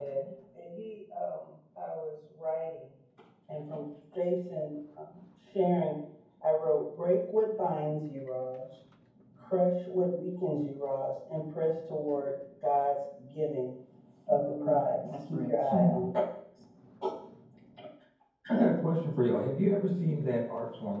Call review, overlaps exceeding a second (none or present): present